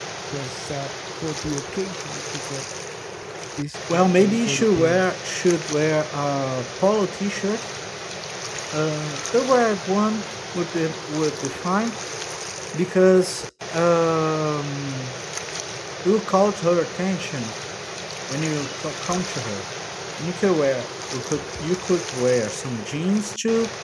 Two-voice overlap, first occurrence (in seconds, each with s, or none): 3.9 s